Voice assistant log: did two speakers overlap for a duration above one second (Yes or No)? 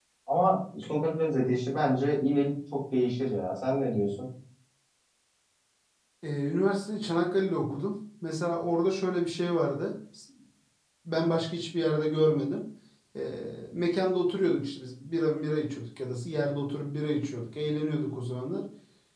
No